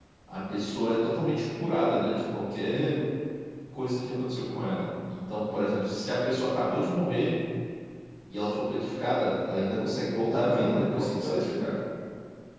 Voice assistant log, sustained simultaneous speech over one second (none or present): present